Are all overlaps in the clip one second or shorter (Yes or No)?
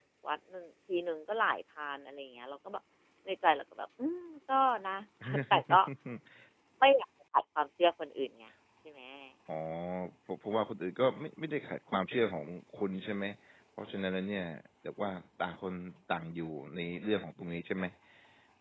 Yes